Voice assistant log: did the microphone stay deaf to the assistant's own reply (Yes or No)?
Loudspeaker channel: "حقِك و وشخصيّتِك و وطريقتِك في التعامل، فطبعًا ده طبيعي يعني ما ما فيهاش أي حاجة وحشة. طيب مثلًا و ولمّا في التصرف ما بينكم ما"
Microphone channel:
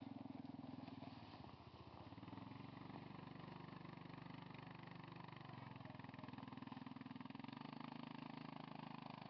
Yes